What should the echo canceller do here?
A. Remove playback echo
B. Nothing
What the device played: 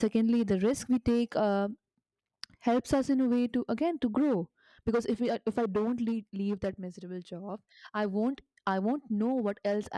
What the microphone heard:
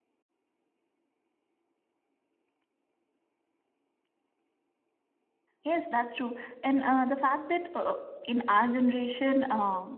B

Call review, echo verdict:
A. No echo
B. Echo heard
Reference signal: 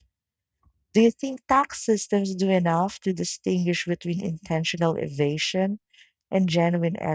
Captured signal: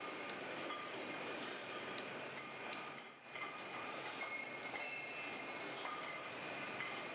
A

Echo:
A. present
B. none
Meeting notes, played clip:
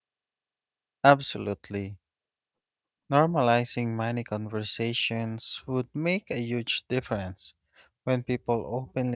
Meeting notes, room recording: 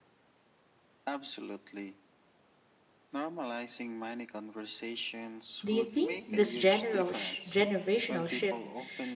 A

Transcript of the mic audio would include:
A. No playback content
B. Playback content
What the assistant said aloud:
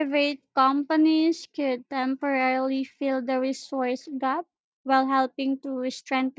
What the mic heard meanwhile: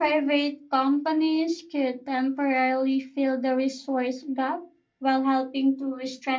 B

